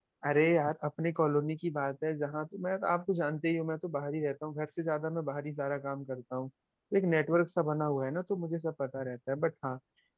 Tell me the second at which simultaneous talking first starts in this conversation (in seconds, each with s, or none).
none